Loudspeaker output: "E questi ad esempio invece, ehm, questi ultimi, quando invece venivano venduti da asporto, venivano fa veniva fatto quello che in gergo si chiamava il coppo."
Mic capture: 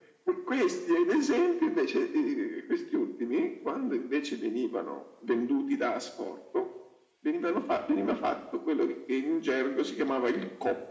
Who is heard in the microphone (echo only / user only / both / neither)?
echo only